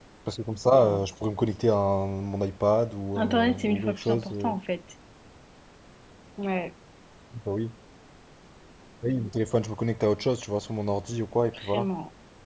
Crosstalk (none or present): present